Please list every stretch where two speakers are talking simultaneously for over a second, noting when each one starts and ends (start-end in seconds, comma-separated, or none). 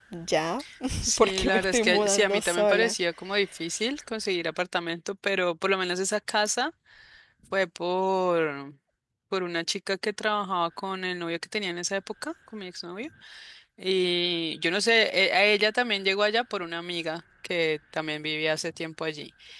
1.2-2.9